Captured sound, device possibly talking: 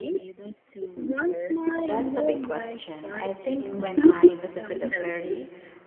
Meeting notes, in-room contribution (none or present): present